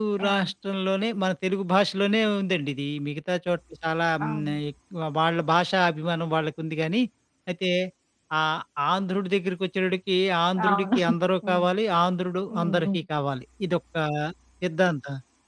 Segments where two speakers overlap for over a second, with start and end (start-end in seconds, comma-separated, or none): none